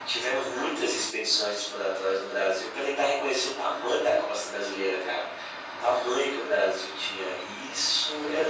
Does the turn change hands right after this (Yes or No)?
Yes